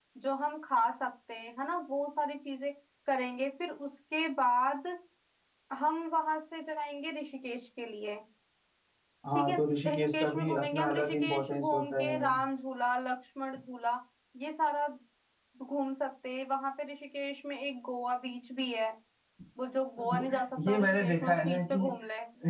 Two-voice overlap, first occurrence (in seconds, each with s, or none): 9.3 s